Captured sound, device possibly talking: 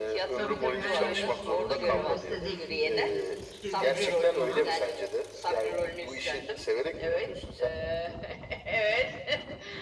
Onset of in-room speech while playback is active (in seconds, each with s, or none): 0.3 s